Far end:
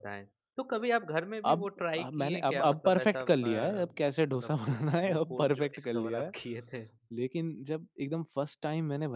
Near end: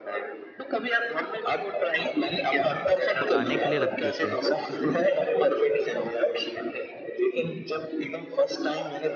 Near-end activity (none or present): present